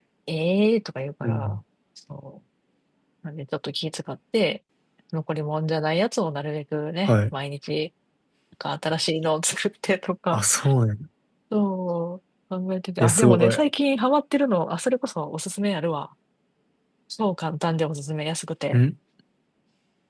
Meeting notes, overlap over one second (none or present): none